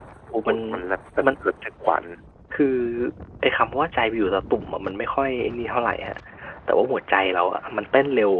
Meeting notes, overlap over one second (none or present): none